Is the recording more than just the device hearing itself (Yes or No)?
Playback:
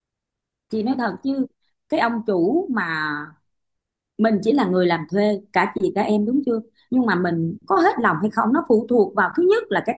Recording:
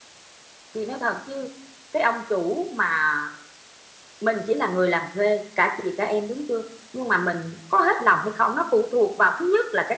No